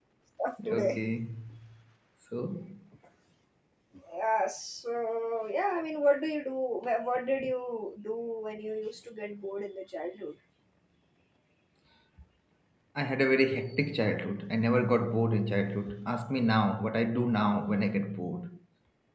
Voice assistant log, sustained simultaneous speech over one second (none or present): none